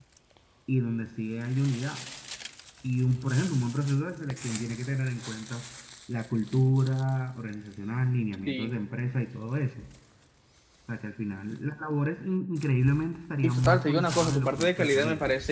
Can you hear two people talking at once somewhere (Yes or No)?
Yes